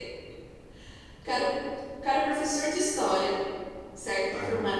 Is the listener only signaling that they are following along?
Yes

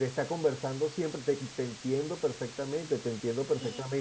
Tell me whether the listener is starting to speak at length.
Yes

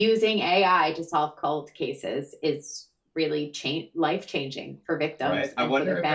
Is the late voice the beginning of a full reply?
Yes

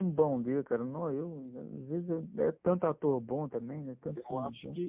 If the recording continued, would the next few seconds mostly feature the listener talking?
Yes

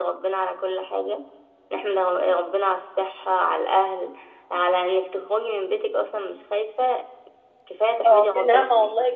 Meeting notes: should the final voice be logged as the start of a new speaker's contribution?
Yes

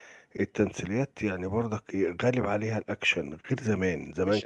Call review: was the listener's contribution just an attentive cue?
No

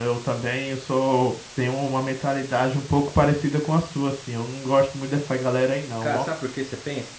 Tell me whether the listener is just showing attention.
No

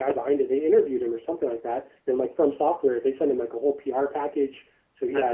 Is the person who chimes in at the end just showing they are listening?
Yes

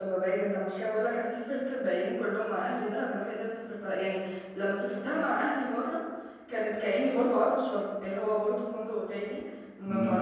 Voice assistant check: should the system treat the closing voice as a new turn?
No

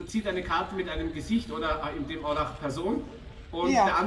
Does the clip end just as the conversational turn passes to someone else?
No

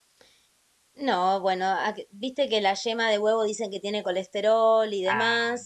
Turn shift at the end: Yes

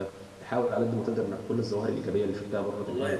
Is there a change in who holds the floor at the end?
Yes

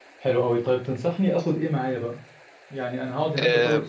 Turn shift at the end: No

